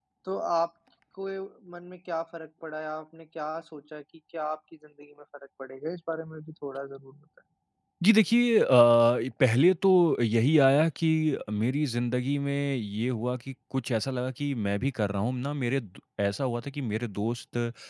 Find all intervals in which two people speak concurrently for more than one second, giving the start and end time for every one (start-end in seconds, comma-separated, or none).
none